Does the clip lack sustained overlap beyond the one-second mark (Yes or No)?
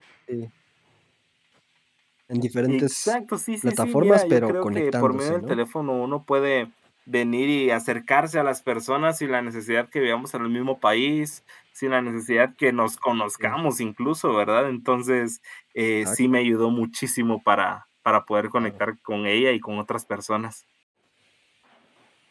No